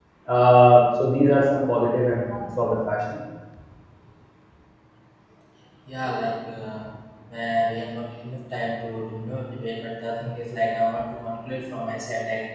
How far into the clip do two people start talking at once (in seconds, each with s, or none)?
none